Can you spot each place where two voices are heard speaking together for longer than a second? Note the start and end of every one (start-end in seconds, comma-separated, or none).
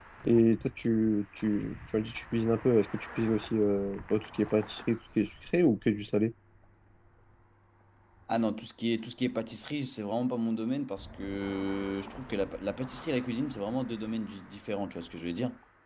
none